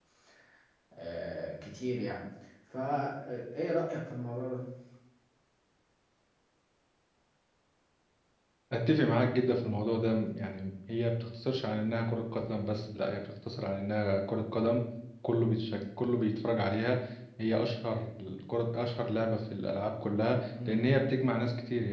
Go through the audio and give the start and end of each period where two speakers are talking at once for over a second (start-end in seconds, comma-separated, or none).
none